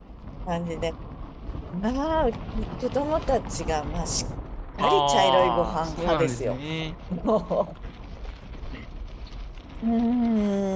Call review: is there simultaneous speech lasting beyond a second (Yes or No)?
Yes